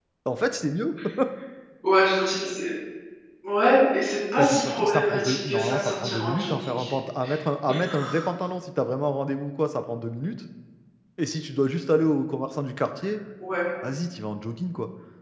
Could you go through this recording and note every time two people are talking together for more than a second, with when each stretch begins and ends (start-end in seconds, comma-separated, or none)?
4.4-6.7